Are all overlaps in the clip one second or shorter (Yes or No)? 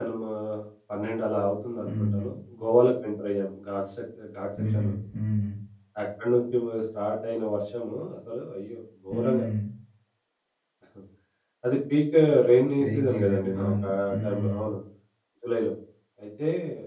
No